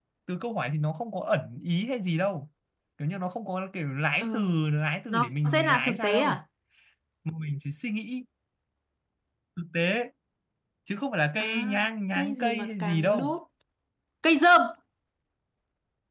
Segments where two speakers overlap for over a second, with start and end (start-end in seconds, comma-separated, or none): 5.1-6.4, 12.1-13.4